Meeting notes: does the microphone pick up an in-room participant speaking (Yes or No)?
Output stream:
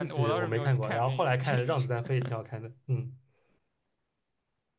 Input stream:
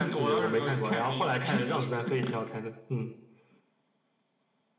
No